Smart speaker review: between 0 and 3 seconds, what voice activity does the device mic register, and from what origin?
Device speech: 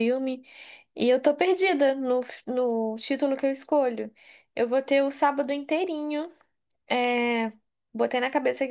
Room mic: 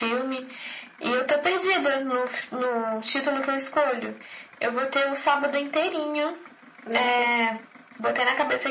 echo only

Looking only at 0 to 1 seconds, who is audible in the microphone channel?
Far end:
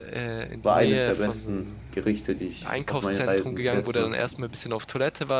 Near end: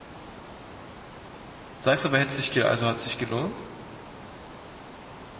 neither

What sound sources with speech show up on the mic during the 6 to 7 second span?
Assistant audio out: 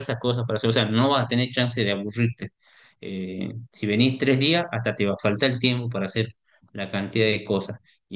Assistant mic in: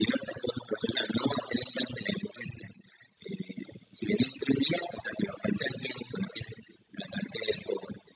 echo only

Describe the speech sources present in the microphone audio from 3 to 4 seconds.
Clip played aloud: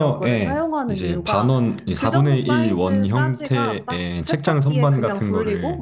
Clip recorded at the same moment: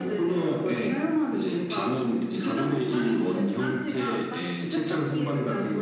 echo only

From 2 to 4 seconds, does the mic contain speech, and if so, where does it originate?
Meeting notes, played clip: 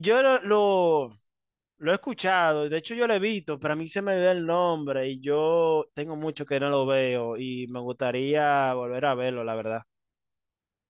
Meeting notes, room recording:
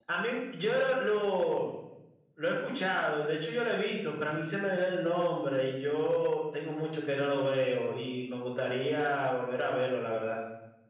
echo only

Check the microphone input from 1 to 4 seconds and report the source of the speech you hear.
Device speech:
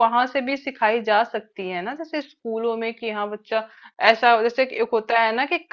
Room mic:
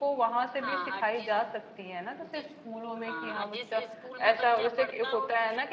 both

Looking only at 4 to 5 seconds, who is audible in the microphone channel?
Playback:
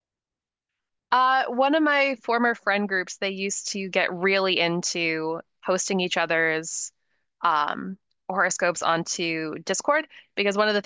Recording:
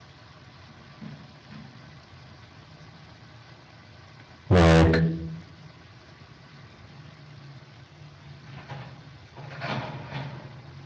user only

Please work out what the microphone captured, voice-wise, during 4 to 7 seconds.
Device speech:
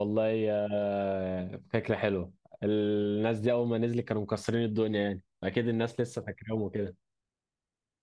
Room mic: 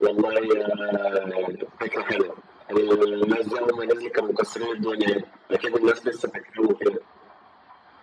echo only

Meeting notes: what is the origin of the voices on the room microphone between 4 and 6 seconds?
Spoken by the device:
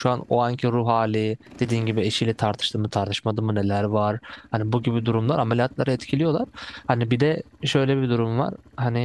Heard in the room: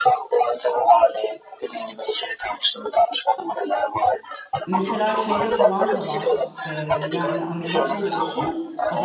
both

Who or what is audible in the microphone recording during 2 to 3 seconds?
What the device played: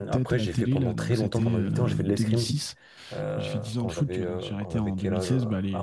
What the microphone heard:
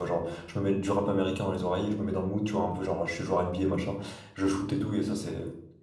user only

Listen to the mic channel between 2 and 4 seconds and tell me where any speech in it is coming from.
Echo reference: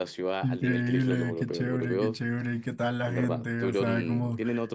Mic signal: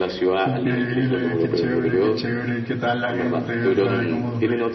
echo only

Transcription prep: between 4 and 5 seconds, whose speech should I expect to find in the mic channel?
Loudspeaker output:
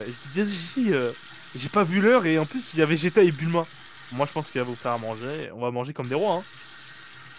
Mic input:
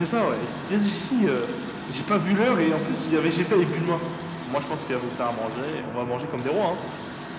echo only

